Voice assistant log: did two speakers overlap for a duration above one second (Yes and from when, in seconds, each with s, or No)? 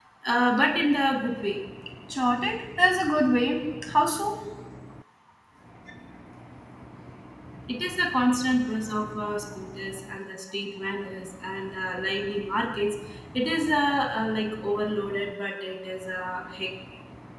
No